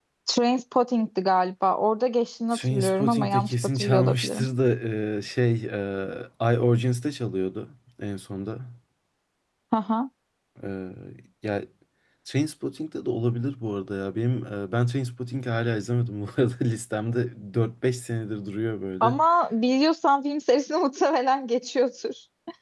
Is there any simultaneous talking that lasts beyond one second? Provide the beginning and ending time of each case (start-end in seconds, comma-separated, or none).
2.5-4.4